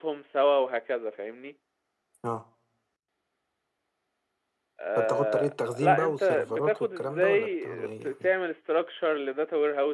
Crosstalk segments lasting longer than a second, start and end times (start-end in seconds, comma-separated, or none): 5.0-8.1